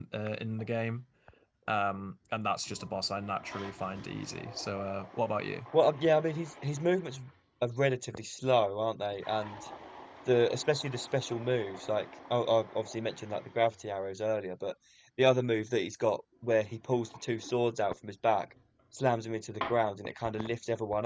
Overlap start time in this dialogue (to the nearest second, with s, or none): none